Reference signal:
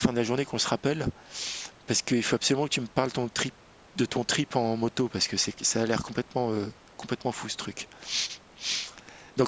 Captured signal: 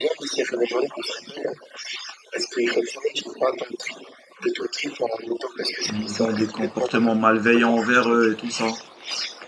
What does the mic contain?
both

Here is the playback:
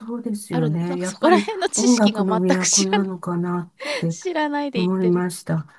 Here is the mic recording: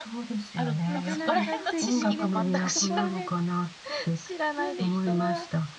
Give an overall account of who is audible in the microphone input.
both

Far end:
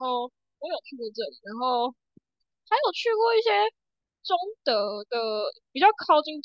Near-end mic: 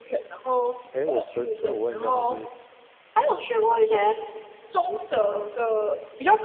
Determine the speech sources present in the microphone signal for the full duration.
both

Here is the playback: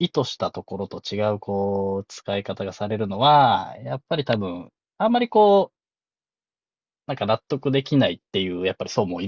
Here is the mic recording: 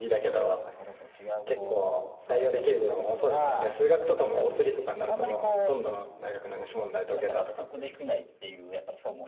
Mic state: both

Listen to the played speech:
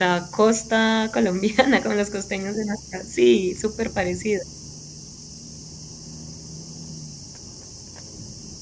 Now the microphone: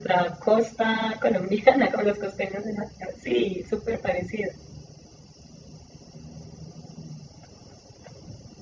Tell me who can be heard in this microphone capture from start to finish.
echo only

